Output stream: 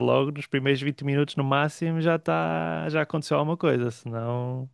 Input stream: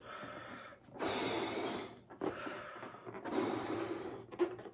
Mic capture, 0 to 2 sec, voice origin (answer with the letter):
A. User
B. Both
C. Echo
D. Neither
D